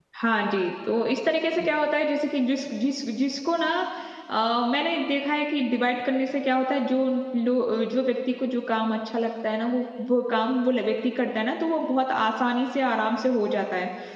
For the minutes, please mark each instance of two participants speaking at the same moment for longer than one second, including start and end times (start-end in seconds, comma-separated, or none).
none